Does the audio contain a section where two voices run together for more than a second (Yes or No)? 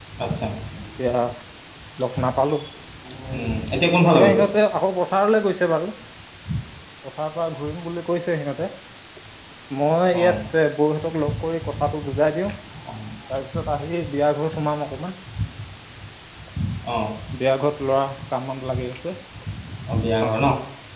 No